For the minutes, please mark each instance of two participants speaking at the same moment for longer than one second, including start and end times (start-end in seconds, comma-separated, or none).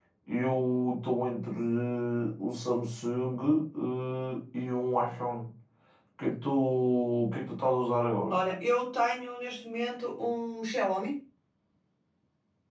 none